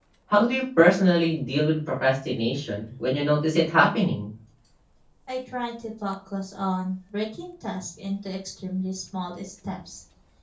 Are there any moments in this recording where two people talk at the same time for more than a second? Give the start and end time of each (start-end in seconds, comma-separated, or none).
none